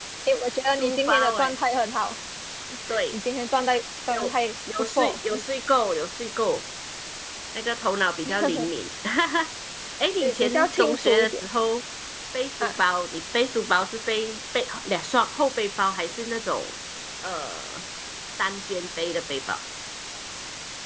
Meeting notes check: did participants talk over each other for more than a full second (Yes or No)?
Yes